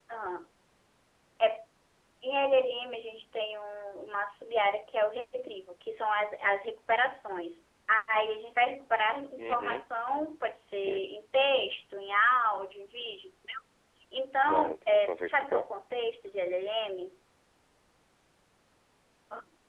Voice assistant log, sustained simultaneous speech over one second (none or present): present